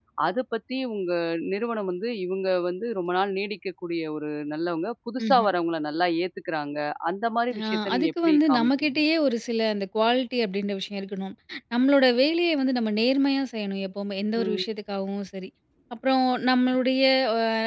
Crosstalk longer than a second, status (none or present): present